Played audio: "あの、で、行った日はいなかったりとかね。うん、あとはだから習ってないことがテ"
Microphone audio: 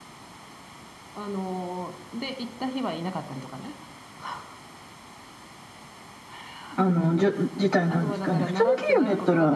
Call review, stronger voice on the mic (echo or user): user